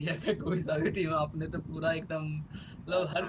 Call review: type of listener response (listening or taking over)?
listening